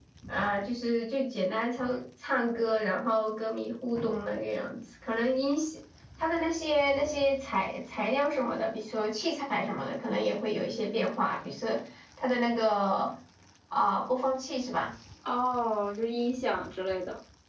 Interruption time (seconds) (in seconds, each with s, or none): none